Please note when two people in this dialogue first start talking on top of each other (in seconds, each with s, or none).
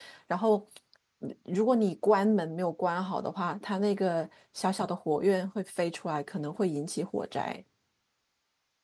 none